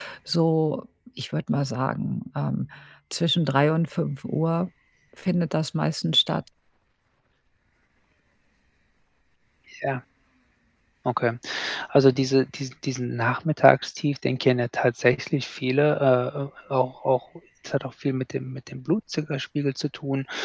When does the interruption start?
none

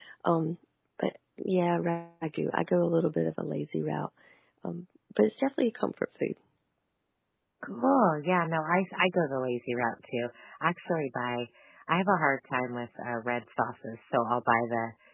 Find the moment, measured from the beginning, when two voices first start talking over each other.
none

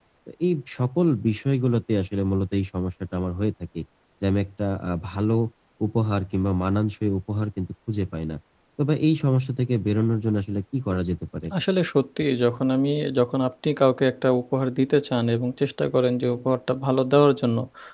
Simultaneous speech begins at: none

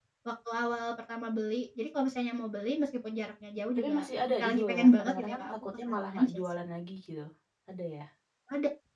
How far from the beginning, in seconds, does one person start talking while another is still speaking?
3.8 s

